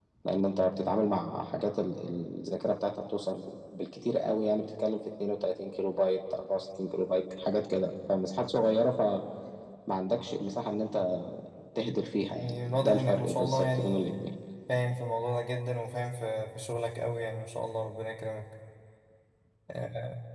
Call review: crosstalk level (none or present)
present